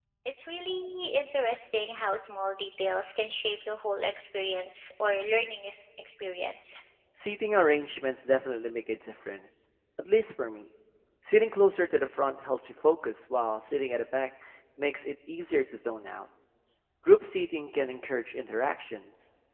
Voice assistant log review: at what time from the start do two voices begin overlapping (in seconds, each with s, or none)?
none